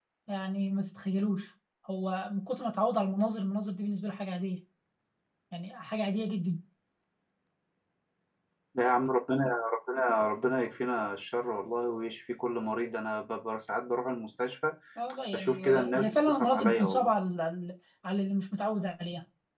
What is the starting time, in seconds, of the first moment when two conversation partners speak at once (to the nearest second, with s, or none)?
15 s